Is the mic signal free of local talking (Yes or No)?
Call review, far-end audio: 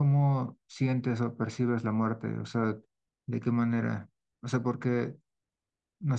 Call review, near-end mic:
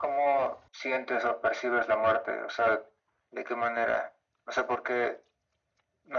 Yes